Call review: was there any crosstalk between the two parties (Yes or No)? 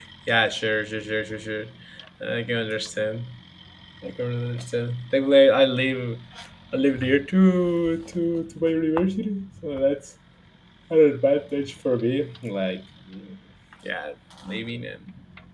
No